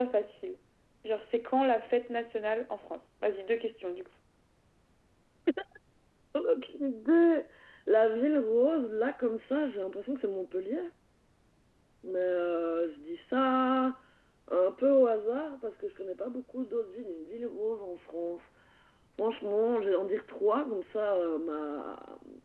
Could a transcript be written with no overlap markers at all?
Yes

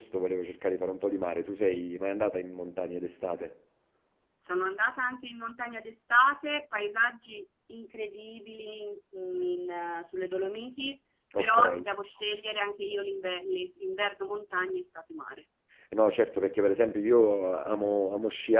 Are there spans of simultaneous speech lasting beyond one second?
No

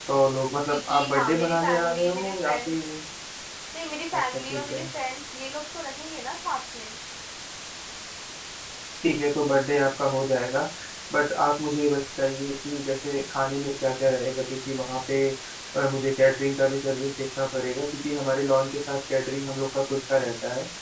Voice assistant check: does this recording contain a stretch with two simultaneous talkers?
Yes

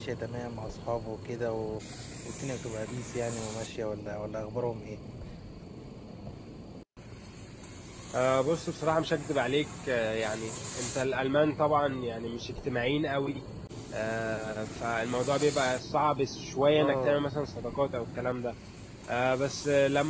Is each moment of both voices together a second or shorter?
Yes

